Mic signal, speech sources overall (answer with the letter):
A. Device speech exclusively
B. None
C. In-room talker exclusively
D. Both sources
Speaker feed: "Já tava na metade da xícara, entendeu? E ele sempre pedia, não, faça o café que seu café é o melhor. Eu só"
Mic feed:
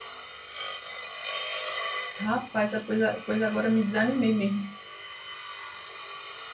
C